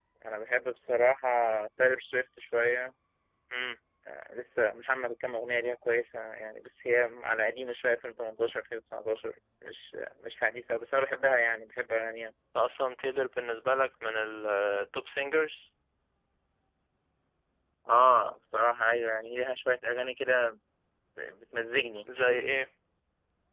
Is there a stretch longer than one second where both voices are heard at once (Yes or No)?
No